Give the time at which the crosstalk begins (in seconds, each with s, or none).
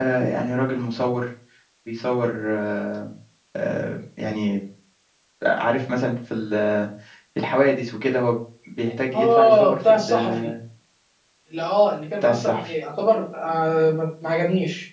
9.1 s